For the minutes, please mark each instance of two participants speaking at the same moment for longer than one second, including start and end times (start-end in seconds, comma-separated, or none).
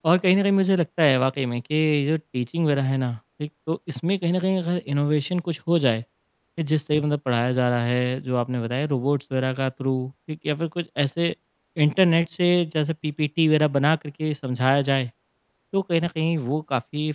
none